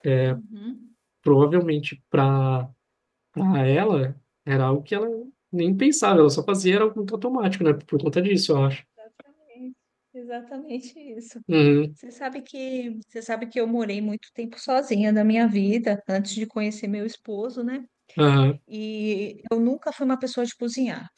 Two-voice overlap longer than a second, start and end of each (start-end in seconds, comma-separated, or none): none